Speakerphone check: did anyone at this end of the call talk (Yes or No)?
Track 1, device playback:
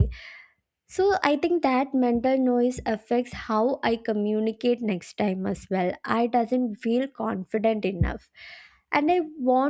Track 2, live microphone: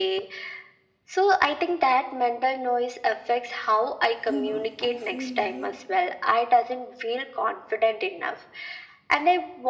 Yes